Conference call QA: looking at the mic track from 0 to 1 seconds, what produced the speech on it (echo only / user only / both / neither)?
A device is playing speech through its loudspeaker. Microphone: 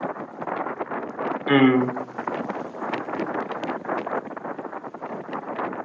neither